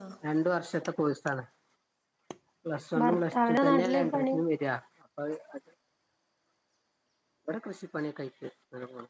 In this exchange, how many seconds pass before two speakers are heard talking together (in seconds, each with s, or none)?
3.0 s